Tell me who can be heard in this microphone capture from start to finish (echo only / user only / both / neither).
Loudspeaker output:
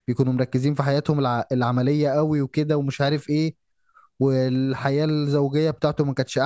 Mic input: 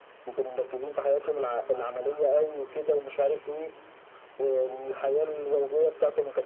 echo only